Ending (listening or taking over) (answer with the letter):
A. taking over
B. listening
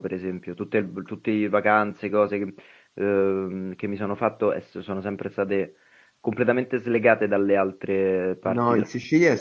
A